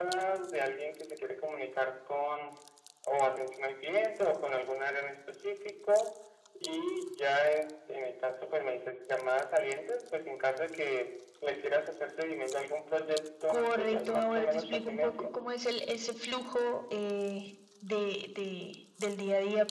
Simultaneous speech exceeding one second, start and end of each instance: 13.5-15.4

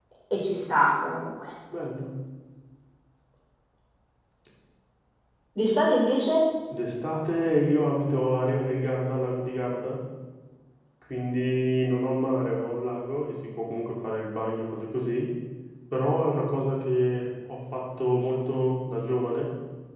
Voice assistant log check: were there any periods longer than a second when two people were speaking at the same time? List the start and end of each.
none

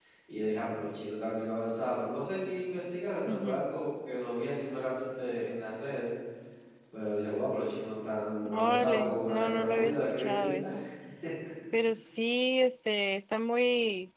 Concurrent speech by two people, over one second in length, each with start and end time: 8.4-10.6

